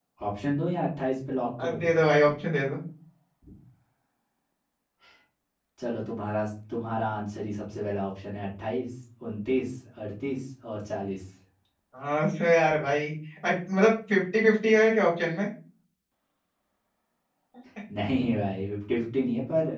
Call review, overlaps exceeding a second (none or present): none